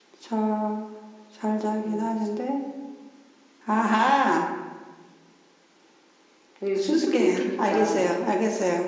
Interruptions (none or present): present